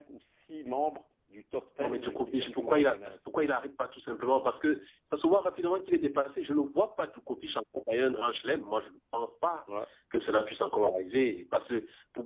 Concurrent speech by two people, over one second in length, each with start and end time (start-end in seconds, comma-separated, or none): 1.8-3.2